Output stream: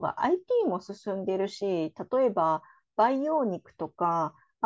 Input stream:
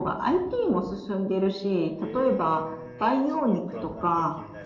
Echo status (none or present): present